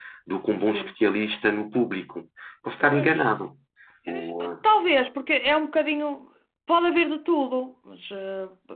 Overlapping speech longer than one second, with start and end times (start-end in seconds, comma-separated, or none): none